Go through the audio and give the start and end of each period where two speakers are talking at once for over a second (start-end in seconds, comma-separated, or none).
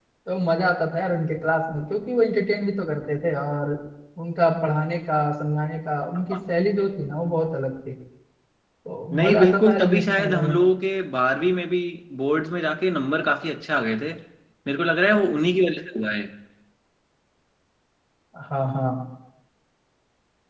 9.1-10.5